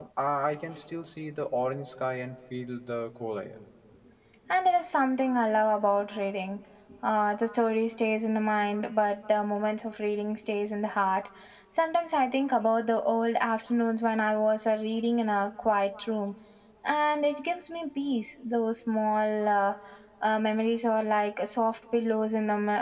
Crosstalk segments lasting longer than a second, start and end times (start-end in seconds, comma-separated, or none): none